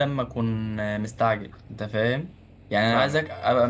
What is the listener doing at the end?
listening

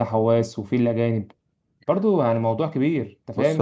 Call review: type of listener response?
taking over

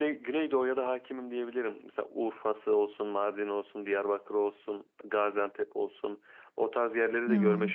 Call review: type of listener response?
listening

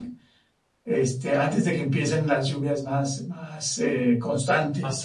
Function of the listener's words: taking over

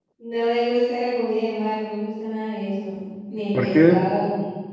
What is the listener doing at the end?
listening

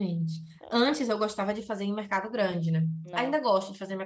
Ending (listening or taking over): listening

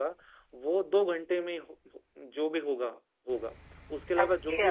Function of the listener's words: listening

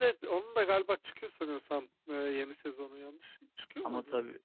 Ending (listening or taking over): taking over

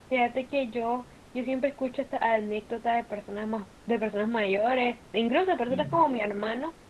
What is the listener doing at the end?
listening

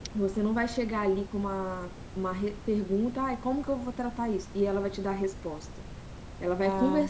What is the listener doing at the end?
listening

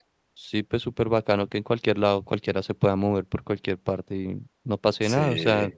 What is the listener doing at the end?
listening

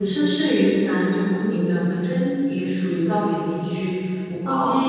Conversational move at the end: listening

